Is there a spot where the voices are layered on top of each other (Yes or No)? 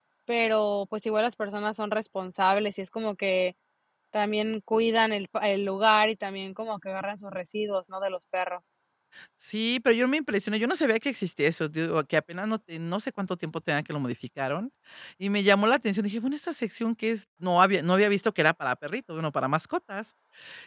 No